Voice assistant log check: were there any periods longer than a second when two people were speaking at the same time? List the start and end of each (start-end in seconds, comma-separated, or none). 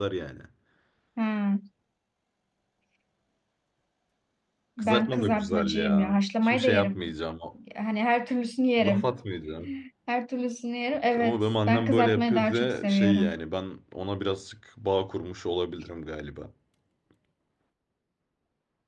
4.8-7.1, 11.2-13.4